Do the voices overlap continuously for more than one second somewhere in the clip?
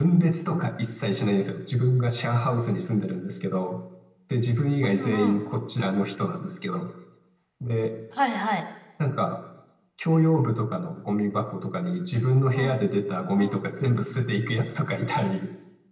No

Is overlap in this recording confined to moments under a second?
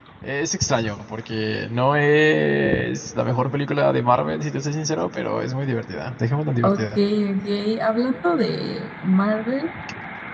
Yes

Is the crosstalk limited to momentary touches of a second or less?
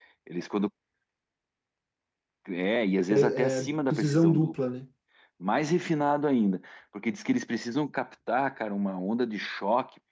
No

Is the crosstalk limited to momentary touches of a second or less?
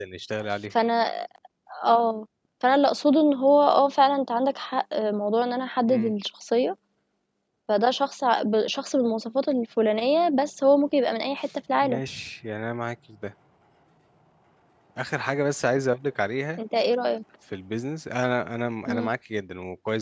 Yes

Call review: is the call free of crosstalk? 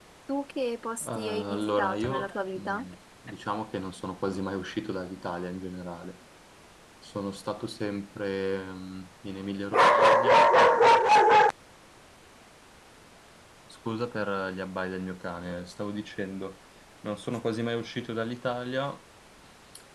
No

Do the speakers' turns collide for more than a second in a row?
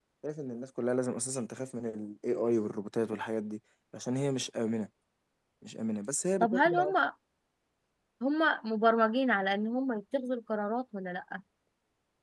No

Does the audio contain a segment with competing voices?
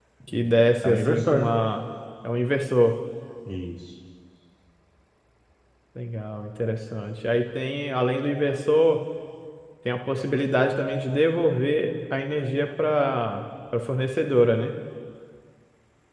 Yes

